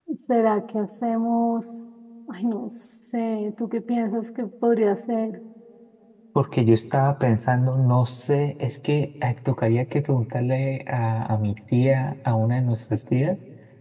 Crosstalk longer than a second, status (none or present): none